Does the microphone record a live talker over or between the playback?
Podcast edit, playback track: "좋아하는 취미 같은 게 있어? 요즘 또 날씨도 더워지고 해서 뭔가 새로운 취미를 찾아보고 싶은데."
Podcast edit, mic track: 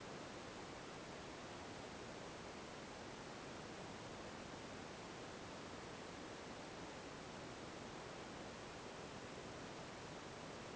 No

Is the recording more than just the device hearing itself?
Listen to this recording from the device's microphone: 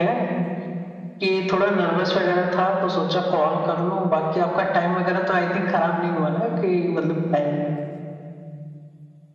No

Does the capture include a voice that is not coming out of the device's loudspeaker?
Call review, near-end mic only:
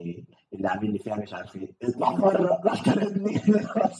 No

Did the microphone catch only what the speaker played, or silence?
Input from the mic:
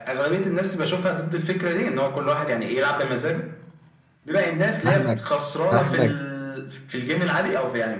No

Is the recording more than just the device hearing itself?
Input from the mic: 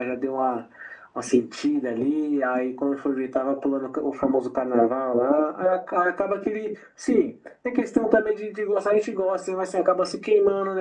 No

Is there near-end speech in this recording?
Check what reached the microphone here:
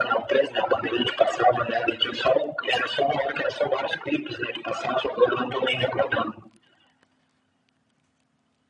No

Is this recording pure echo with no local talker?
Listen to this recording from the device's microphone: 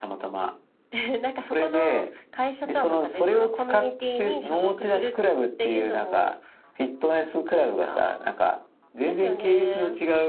Yes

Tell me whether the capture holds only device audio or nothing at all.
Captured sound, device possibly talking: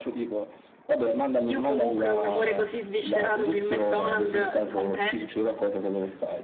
No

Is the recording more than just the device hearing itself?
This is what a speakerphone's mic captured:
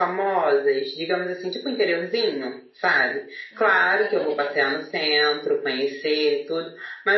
Yes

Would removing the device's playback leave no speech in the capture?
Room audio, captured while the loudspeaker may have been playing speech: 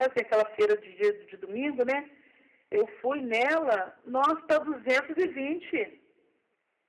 Yes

